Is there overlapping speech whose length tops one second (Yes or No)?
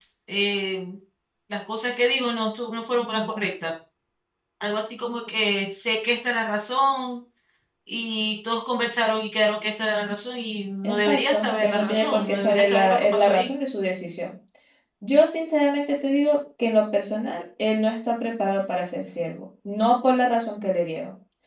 Yes